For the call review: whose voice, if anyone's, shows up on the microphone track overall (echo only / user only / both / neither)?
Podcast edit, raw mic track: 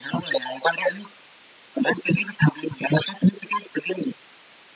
echo only